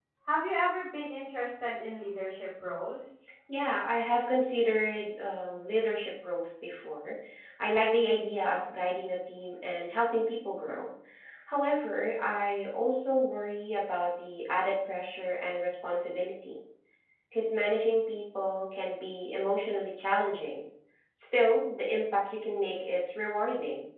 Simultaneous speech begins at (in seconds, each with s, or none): none